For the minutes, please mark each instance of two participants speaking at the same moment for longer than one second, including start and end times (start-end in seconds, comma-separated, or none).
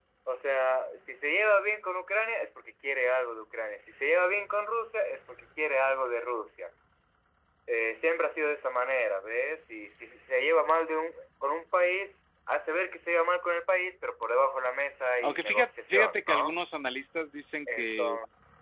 15.2-16.6